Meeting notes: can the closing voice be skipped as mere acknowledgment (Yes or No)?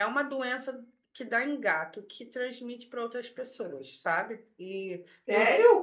No